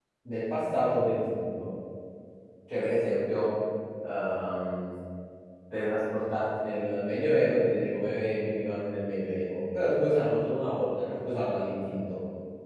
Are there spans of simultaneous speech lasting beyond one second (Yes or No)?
No